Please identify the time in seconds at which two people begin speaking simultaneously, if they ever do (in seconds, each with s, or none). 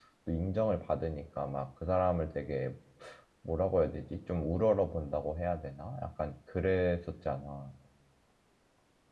none